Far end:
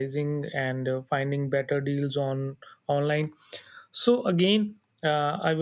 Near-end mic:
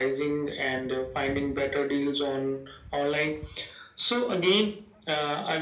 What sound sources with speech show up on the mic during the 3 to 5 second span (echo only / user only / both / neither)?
echo only